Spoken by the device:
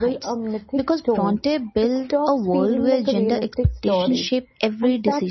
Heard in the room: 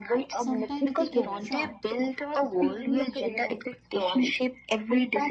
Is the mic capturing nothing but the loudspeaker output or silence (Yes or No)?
No